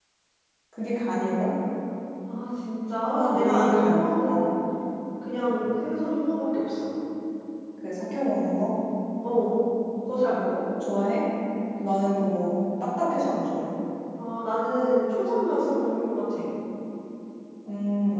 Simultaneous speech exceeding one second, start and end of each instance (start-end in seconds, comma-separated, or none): 3.0-4.5